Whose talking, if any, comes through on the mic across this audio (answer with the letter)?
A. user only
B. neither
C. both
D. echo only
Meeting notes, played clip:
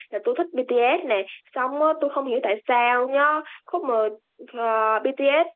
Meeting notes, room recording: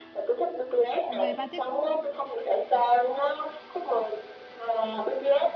C